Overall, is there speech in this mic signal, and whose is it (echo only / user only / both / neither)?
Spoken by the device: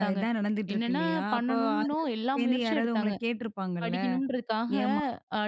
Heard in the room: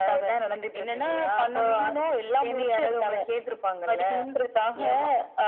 echo only